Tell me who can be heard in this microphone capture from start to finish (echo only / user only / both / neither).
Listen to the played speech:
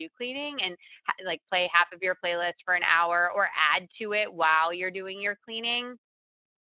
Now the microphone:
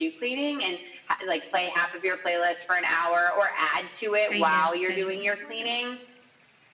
both